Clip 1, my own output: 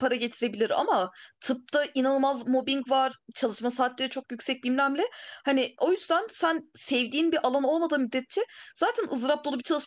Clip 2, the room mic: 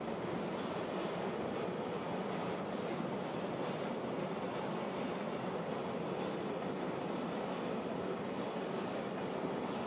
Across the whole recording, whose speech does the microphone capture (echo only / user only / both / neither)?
neither